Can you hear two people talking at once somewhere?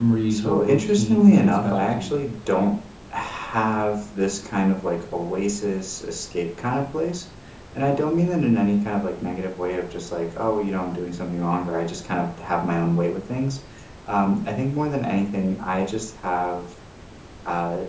Yes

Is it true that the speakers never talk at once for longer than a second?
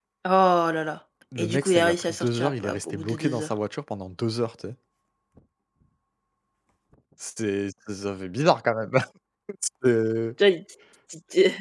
No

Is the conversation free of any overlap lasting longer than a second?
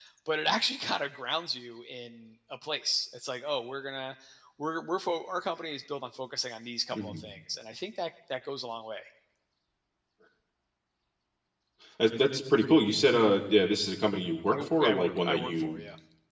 No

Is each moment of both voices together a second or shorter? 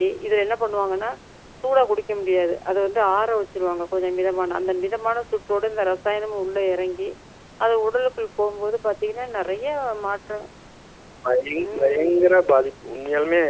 Yes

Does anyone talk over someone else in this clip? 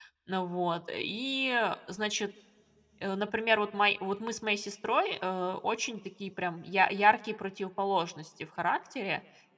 No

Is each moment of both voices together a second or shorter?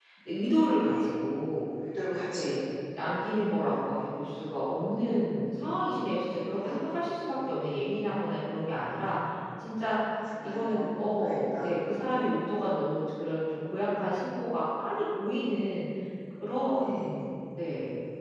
No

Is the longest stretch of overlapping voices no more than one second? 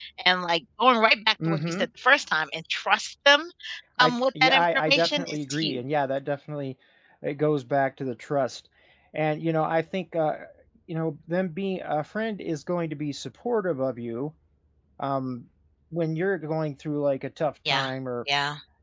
No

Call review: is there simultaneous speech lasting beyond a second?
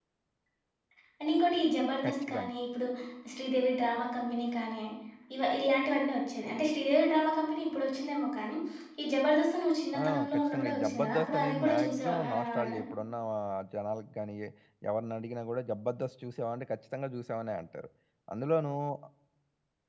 Yes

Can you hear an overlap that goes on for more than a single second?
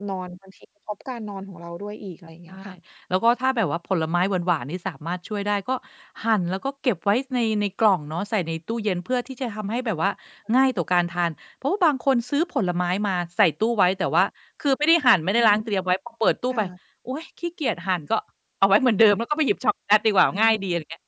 No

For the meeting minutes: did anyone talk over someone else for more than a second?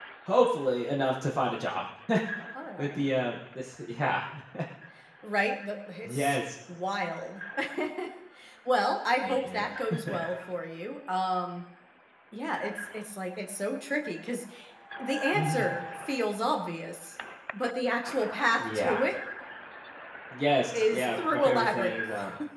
Yes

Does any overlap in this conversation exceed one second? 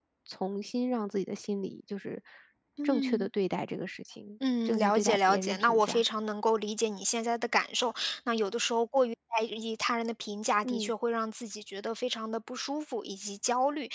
Yes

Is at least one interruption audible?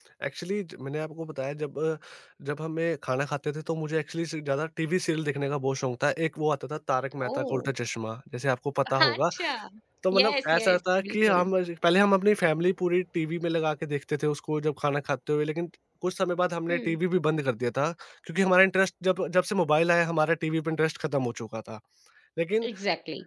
Yes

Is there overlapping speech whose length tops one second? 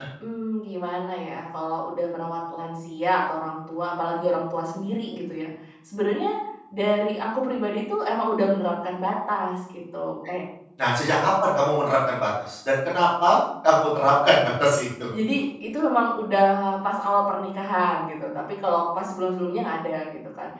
No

